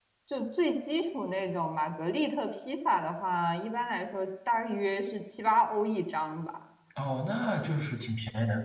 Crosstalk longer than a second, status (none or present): none